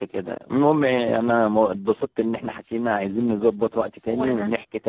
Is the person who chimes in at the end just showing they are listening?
Yes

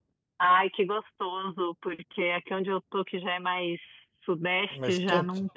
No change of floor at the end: Yes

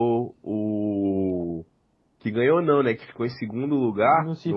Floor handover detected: No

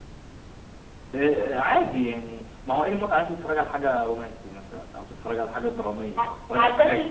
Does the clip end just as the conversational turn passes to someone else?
Yes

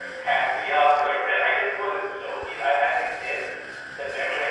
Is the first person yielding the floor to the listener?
No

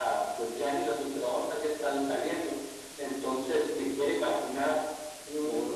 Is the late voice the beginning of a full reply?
No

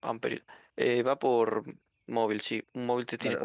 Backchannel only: No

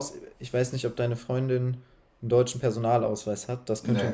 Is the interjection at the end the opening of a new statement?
No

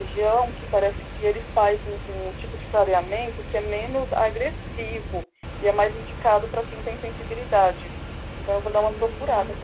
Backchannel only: No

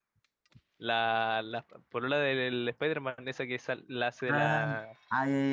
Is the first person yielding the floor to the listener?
Yes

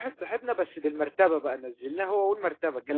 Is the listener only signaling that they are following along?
Yes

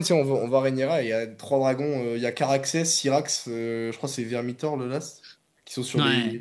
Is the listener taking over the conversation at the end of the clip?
No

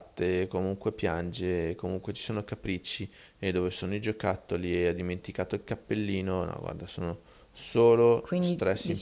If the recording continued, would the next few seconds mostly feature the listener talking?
Yes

